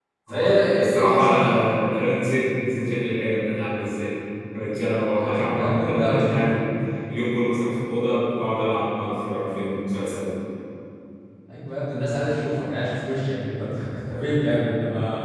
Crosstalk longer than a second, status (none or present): present